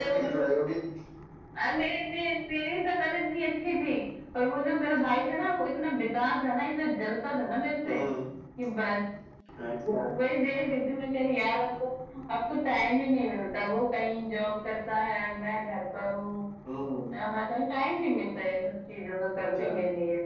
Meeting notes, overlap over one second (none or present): none